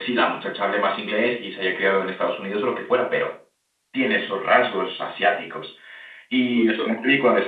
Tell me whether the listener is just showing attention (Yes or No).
Yes